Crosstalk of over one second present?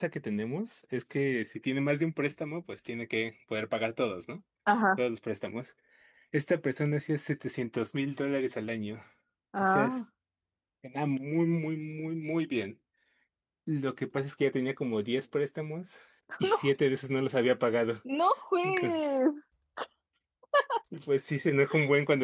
No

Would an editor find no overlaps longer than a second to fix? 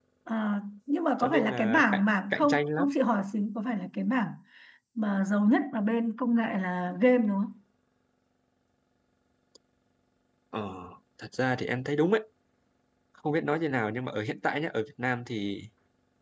No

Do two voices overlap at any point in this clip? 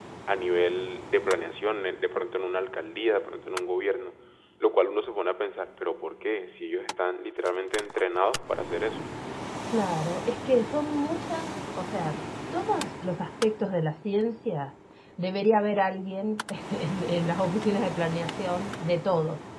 No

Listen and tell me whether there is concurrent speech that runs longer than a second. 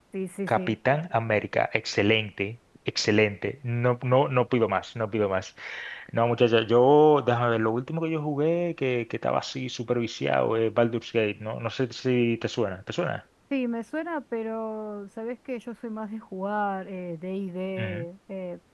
No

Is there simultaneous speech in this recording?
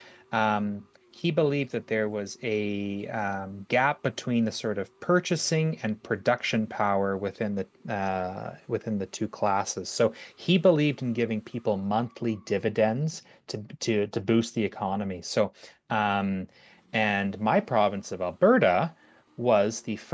No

